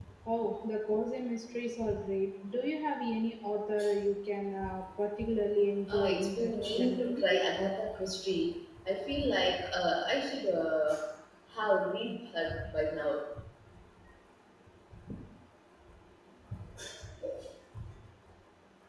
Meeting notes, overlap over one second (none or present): present